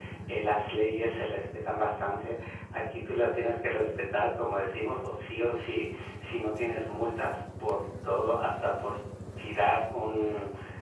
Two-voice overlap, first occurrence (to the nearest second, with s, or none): none